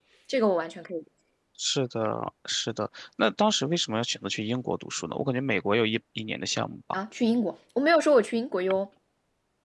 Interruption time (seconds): none

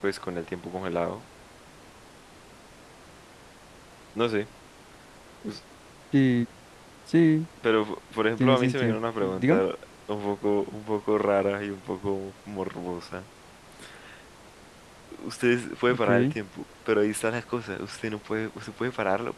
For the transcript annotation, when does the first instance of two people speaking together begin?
8.4 s

